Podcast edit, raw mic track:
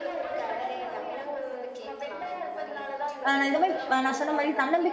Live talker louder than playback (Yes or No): Yes